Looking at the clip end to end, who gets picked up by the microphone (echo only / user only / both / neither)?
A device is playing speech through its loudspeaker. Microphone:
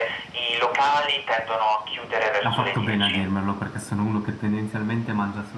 both